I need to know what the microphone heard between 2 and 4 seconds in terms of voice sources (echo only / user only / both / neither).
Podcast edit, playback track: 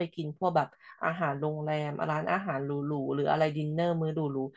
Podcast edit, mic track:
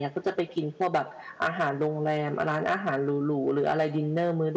echo only